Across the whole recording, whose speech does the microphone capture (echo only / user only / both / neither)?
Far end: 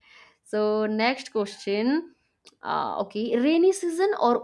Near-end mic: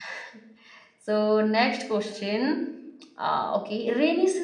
echo only